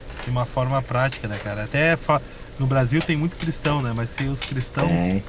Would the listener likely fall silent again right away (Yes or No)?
Yes